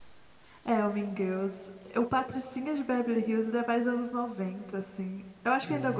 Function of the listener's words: listening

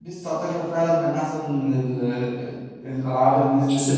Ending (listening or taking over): taking over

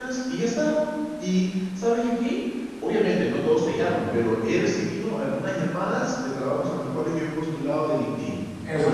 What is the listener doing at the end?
taking over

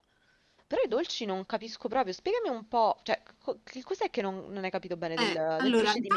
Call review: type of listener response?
taking over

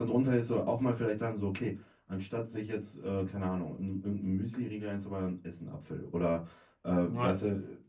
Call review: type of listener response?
listening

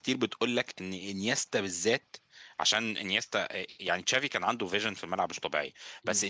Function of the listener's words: listening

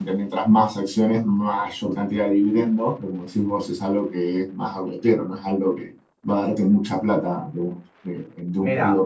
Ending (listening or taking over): taking over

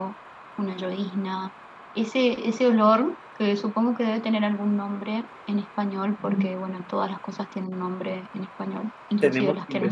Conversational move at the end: taking over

